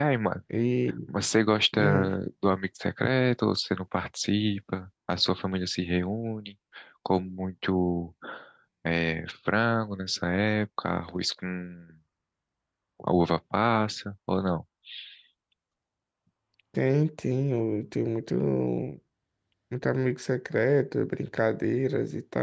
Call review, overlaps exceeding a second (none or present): none